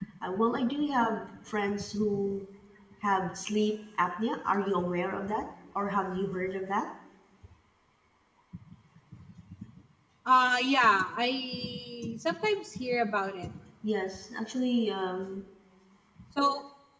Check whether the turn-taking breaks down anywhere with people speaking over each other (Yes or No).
No